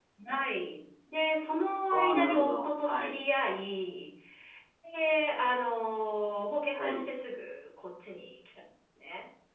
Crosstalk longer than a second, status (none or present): present